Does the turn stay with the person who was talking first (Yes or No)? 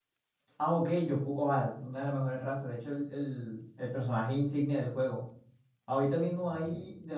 Yes